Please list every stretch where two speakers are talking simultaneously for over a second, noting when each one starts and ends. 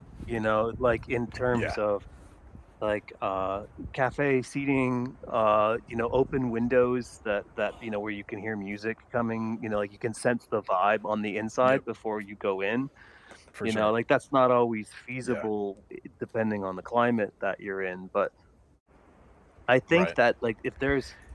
none

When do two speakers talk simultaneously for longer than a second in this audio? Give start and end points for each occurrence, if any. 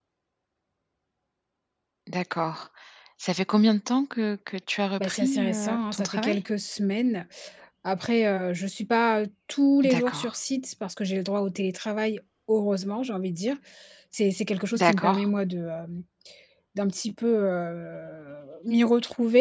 5.0-6.4

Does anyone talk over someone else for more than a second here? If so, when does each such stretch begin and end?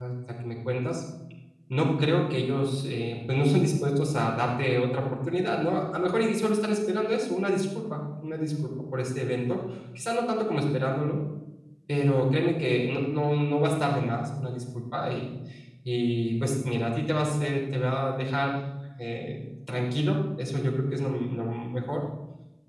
none

